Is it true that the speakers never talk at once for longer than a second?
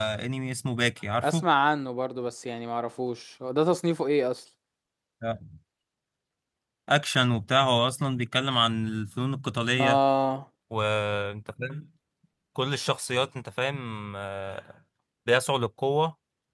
Yes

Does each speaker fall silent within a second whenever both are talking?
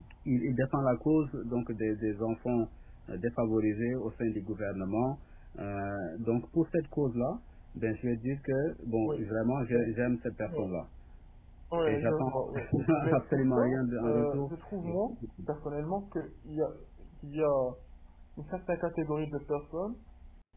No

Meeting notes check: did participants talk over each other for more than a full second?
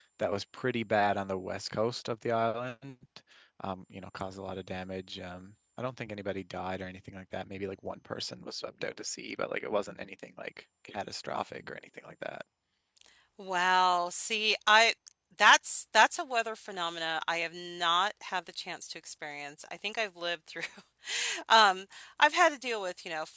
No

